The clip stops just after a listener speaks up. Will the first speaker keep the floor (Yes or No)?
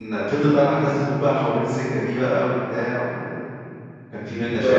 No